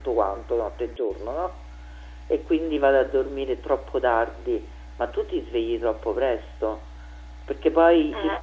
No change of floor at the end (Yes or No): Yes